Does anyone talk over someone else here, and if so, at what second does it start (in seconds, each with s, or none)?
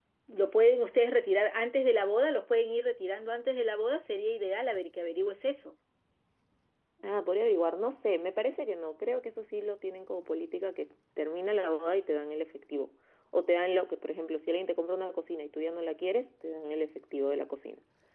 none